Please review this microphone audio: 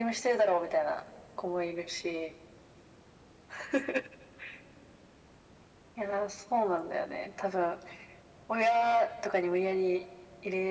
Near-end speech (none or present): none